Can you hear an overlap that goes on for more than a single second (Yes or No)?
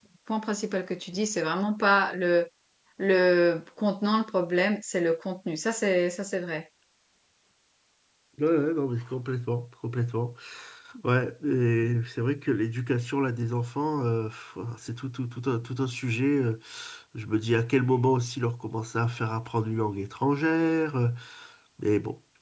No